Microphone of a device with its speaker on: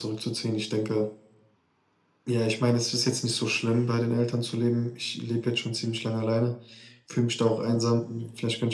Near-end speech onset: none

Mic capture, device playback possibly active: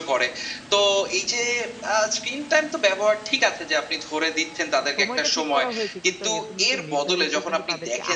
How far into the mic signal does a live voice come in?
5.0 s

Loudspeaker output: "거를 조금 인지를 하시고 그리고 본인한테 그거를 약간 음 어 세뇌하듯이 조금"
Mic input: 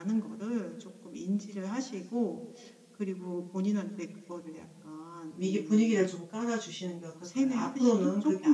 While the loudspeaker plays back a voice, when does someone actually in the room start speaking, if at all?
5.3 s

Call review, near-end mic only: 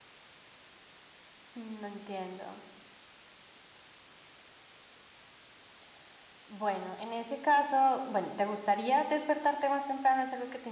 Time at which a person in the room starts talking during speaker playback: none

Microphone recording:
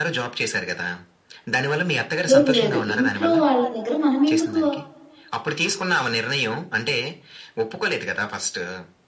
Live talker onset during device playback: 2.3 s

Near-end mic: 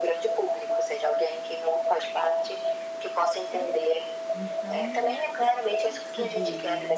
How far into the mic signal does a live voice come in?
3.5 s

